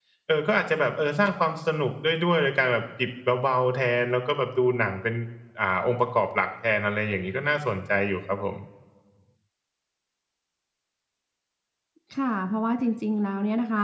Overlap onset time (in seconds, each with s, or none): none